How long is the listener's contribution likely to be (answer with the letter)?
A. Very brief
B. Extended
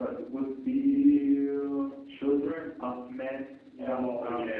B